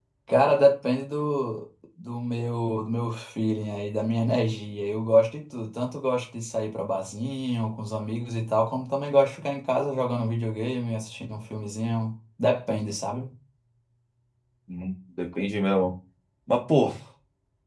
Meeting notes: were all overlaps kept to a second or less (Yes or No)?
Yes